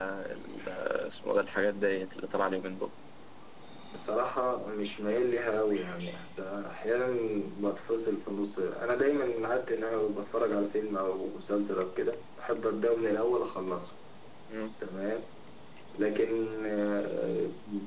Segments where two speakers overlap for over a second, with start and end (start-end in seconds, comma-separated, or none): none